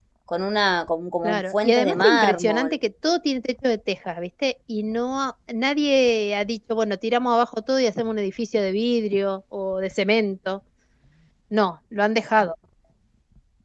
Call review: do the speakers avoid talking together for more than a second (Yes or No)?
No